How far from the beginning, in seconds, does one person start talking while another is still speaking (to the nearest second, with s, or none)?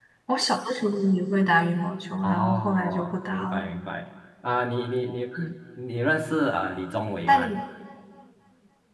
2 s